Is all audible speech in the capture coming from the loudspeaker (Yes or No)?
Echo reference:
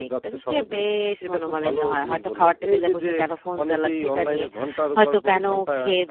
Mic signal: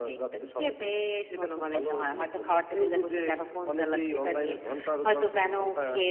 Yes